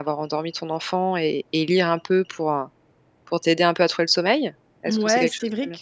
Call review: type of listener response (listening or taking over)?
taking over